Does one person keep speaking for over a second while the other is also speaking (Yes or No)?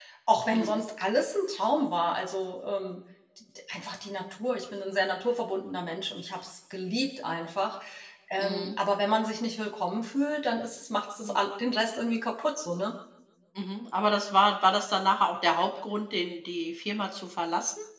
No